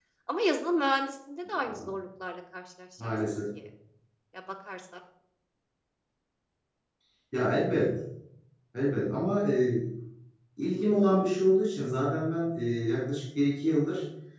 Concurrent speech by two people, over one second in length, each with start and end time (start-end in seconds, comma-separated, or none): none